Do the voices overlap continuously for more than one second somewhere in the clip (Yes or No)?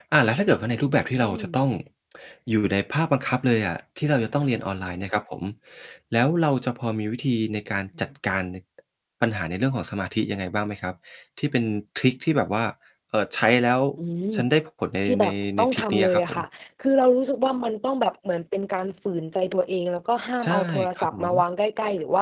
Yes